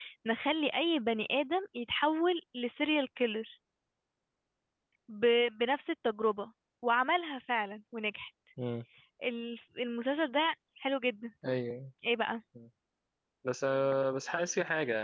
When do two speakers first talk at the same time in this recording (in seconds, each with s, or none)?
none